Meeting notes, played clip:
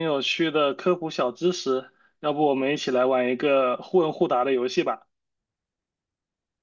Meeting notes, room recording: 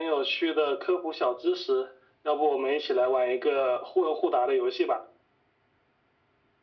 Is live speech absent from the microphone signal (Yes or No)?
Yes